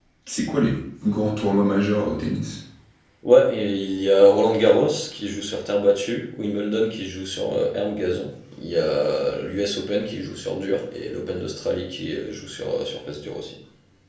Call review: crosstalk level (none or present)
none